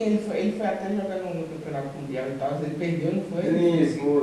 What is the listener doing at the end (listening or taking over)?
taking over